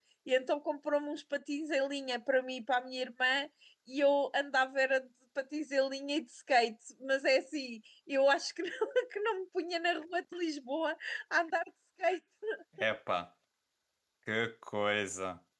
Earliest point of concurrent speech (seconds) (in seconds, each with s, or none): none